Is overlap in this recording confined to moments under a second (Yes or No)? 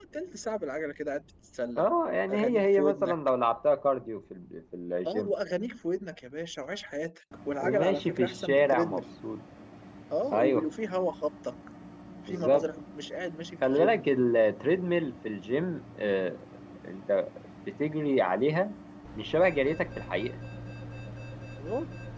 No